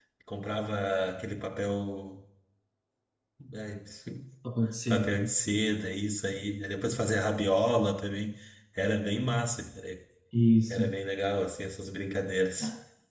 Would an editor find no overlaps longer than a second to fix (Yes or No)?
Yes